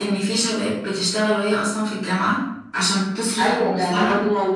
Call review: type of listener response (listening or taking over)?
taking over